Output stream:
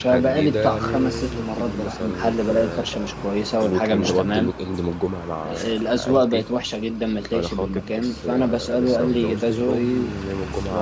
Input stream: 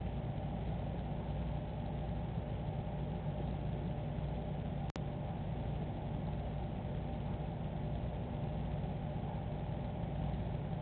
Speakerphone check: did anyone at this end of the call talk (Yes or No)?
No